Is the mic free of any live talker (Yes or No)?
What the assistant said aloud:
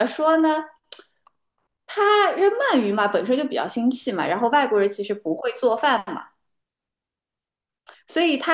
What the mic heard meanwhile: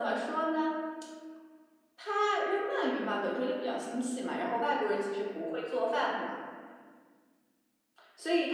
Yes